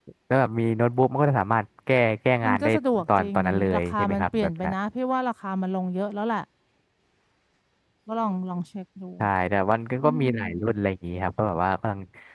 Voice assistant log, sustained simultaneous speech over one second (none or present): present